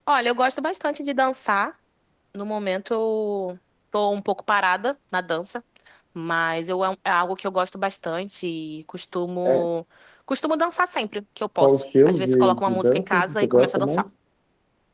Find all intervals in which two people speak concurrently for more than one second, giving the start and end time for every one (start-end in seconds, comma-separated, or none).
11.6-14.0